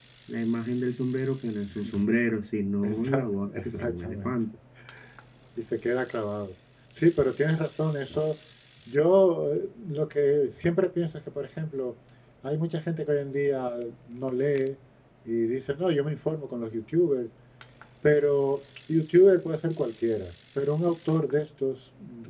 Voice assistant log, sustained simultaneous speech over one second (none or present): present